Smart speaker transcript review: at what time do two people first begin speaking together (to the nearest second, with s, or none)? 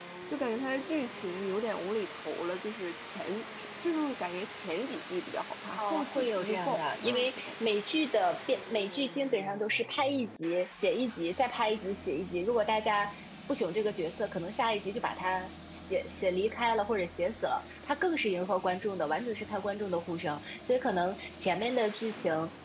6 s